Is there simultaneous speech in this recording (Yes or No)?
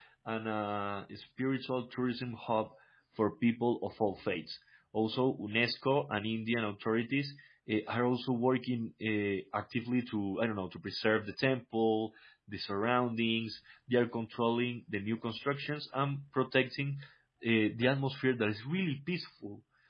No